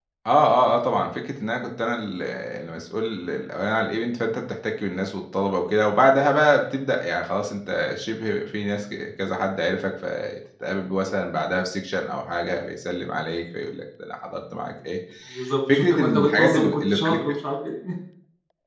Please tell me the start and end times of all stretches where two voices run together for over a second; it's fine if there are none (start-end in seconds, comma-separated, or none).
15.7-17.2